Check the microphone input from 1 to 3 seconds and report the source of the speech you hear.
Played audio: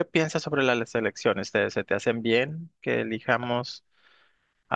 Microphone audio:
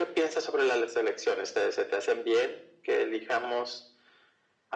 echo only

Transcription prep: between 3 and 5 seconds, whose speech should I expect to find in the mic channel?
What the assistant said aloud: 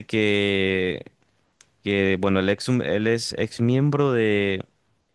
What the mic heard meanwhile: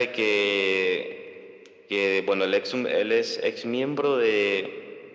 echo only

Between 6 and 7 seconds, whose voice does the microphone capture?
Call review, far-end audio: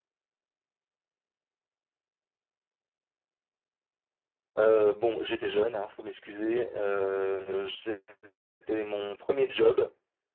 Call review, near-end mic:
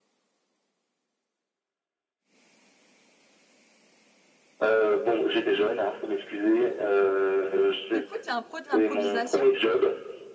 echo only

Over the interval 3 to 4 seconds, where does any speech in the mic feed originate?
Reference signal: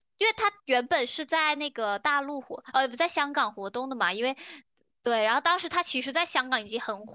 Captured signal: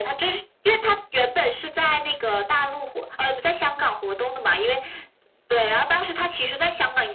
echo only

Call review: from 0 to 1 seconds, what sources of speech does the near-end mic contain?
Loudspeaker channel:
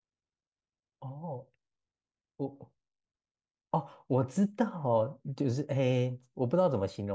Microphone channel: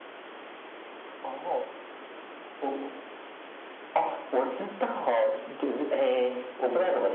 neither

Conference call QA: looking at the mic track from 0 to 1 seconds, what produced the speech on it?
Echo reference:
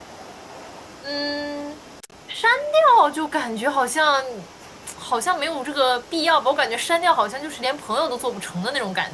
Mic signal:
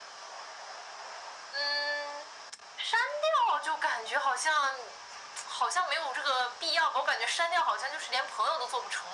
neither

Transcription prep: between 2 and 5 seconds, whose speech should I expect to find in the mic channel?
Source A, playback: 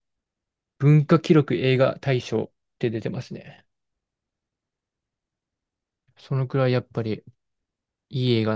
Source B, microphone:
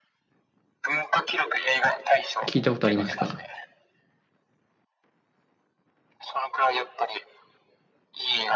both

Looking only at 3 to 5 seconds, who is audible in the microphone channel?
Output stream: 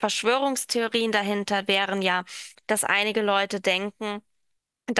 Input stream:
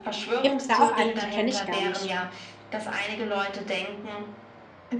echo only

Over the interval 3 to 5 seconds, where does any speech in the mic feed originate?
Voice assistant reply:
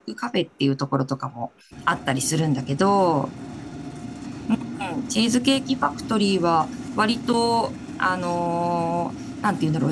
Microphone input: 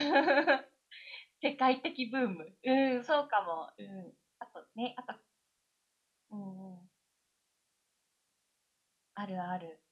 user only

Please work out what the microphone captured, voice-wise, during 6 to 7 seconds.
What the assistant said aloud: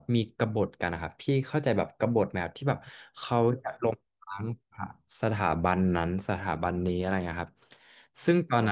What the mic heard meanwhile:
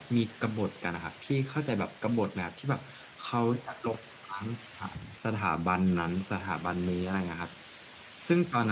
echo only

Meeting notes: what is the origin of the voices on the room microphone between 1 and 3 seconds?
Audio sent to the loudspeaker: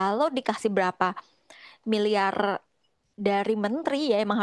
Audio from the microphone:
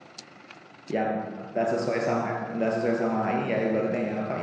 user only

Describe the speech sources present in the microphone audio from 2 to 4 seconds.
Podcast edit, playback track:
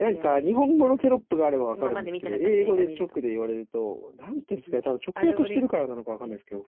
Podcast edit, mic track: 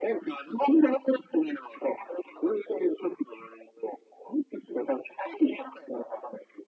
echo only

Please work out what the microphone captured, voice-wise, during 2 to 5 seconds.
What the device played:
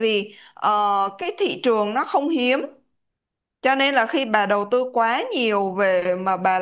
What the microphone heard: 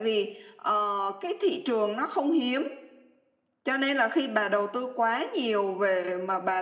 echo only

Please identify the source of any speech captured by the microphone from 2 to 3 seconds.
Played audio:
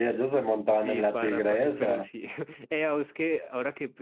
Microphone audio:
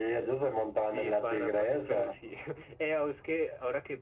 echo only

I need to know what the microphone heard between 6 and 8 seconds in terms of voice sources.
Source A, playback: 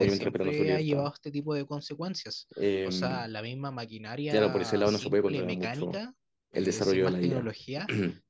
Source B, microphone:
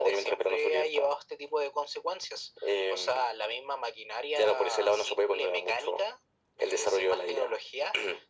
echo only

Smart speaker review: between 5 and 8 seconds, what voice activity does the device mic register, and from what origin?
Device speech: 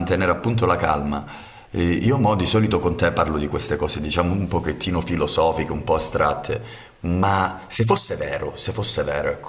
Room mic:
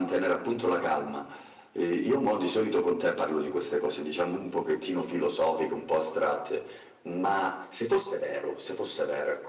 echo only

